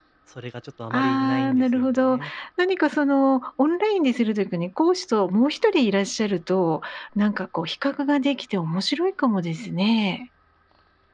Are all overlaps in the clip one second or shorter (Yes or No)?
No